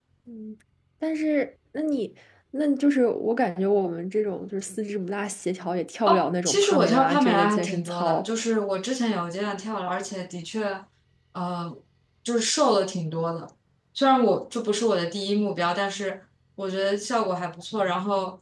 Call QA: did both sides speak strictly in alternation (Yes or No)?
No